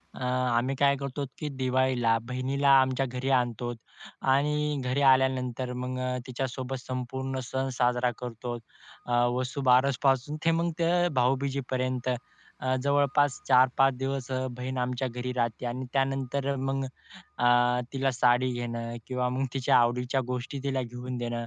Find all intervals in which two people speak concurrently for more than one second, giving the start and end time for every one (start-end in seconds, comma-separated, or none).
none